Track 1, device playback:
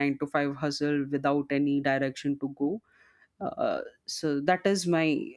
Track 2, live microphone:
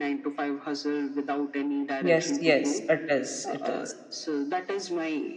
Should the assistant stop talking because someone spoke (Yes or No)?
Yes